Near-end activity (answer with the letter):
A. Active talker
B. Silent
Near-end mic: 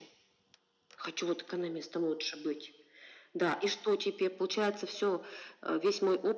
B